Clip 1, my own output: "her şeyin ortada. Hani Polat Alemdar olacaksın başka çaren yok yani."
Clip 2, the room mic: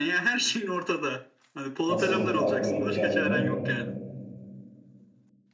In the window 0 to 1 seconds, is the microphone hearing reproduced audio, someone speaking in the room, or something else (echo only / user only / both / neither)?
echo only